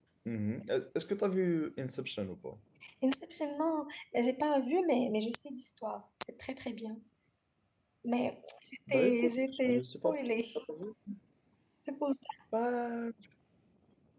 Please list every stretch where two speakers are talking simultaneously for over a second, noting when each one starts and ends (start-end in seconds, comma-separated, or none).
8.9-10.1